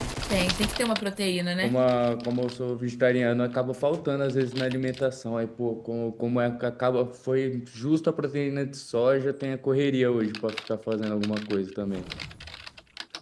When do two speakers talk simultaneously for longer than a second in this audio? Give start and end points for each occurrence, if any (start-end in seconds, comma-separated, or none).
none